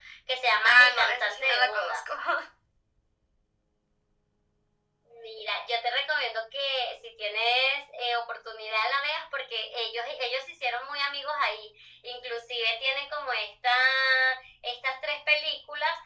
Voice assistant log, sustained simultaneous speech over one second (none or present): present